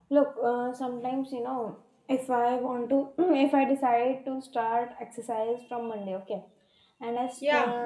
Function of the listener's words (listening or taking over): listening